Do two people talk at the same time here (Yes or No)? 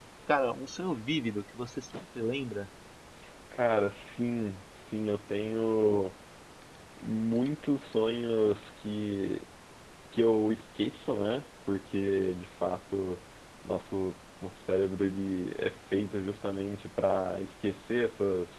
No